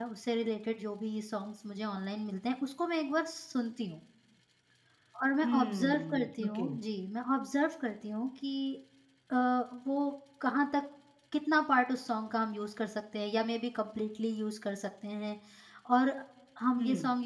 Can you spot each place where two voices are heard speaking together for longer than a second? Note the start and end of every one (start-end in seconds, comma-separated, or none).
5.4-6.7